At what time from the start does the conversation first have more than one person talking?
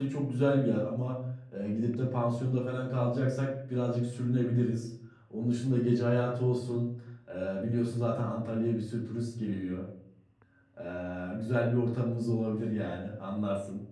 none

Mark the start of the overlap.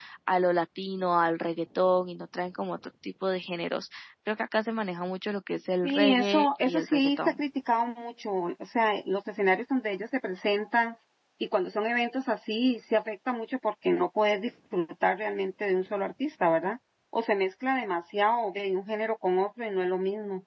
5.8 s

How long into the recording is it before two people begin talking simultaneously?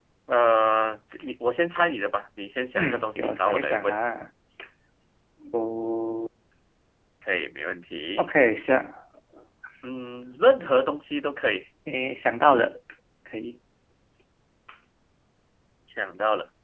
2.8 s

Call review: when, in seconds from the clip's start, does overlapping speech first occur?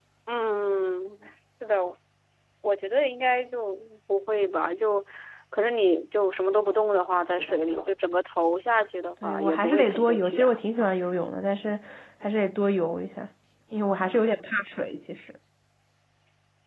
9.2 s

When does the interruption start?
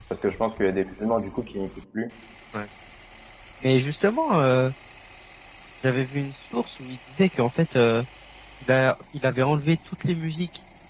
none

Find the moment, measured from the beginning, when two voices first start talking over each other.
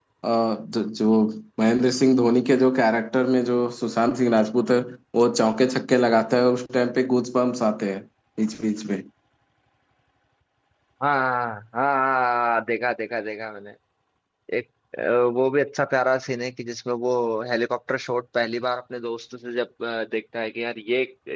none

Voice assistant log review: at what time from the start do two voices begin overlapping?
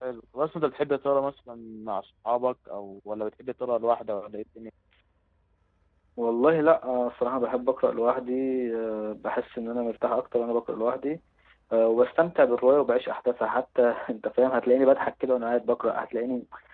none

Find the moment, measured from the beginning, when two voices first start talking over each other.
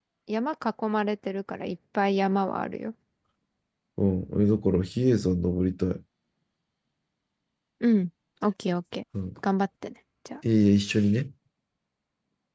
none

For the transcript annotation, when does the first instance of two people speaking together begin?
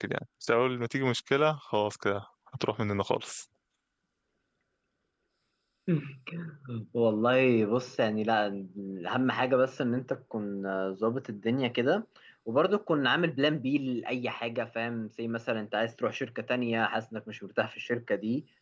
none

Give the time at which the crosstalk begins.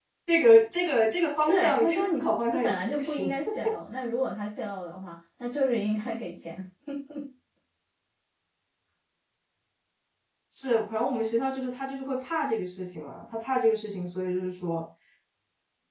1.5 s

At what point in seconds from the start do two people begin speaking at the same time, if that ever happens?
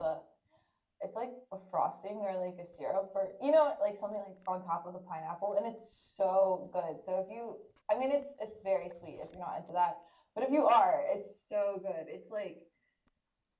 none

